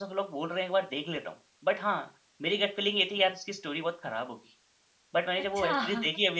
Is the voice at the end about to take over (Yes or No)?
No